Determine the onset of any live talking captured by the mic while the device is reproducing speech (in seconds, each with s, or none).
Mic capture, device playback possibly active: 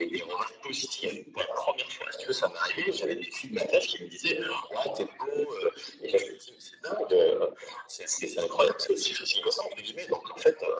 none